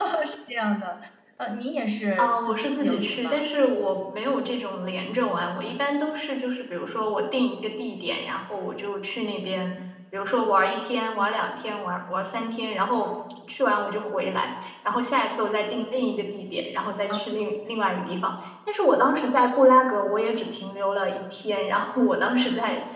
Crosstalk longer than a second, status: present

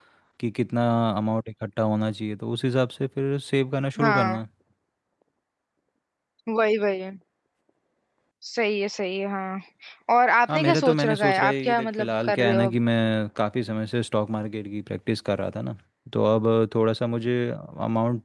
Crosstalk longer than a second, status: present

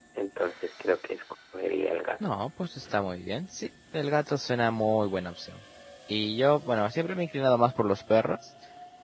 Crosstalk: none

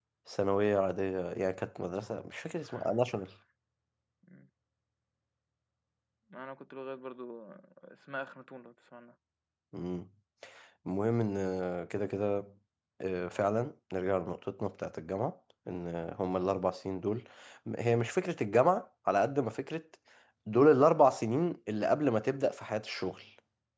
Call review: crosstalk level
none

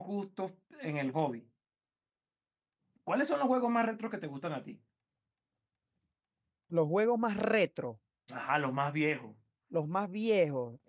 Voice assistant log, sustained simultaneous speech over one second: none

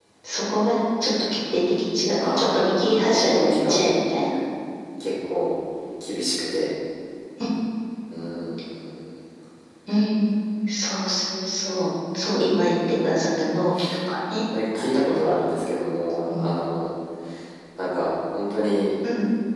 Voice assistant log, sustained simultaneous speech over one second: present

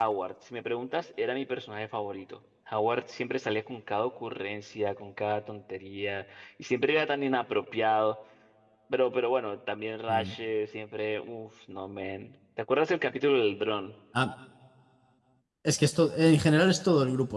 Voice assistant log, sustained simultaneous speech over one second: none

